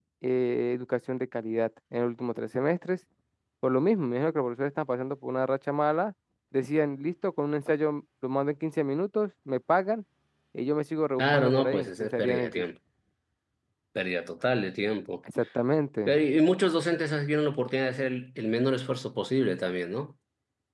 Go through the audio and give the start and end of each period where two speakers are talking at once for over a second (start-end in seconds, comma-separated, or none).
11.2-12.6